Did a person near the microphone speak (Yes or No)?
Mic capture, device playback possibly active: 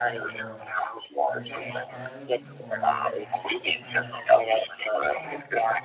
Yes